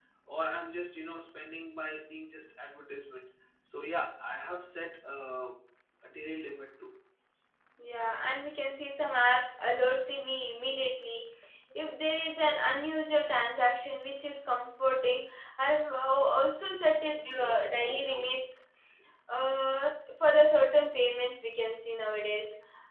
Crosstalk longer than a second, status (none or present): none